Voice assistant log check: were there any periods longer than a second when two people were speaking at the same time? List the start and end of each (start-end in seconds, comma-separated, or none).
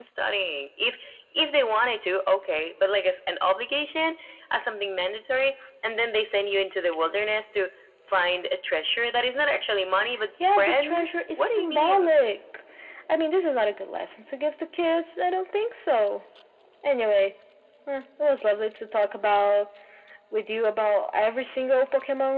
10.6-12.2